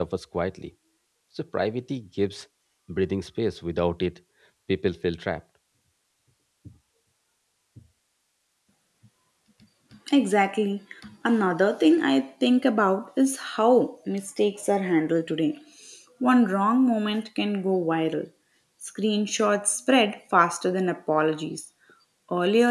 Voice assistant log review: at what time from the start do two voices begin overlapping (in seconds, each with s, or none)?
none